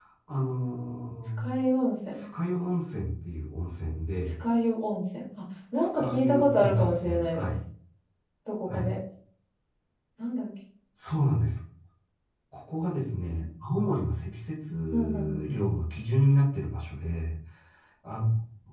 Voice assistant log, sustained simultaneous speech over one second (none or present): present